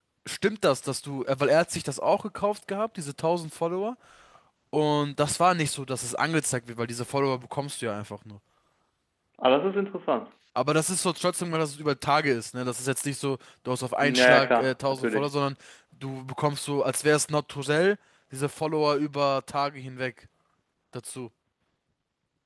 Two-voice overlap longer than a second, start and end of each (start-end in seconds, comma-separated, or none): 14.0-15.3